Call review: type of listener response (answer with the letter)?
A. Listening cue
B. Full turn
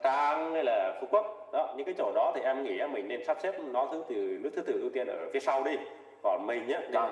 A